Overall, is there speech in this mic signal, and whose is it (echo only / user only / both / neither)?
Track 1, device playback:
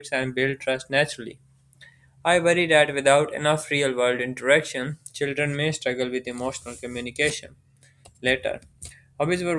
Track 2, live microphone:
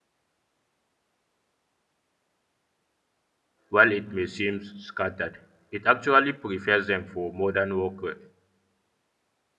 user only